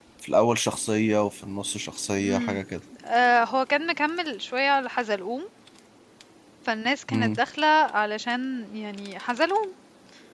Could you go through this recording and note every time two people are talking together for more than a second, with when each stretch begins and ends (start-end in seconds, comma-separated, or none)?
none